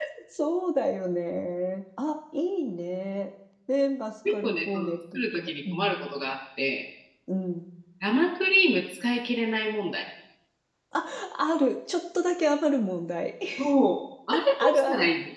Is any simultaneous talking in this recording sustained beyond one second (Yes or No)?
Yes